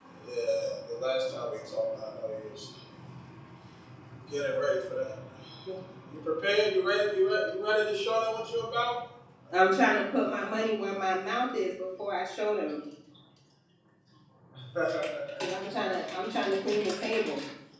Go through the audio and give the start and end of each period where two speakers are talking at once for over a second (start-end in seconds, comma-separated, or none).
none